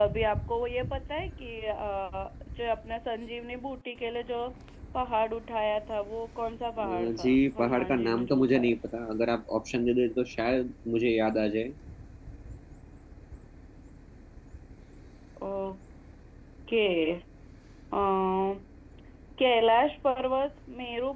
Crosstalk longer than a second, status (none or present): present